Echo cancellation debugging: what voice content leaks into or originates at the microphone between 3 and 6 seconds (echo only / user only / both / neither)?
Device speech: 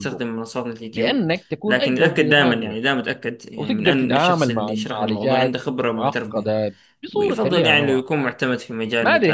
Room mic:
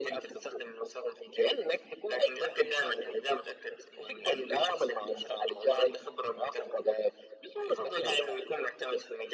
echo only